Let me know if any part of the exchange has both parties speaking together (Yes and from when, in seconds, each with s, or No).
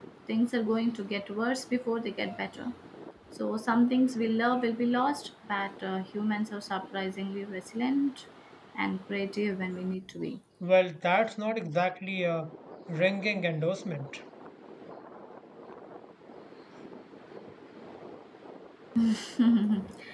No